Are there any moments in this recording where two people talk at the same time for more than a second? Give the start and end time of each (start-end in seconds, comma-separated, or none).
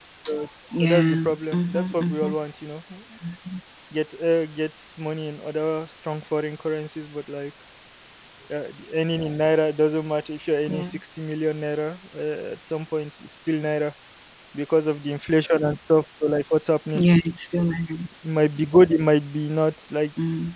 0.8-2.3